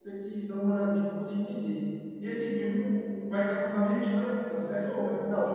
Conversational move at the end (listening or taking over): taking over